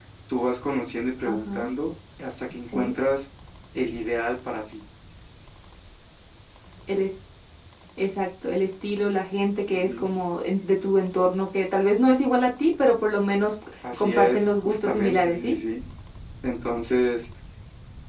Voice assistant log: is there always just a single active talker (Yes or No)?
No